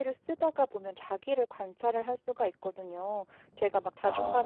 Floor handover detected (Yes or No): No